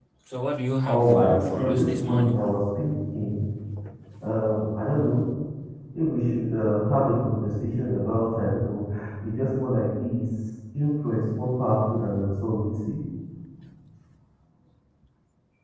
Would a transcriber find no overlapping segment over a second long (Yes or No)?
No